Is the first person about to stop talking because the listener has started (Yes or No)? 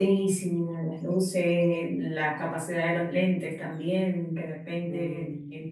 No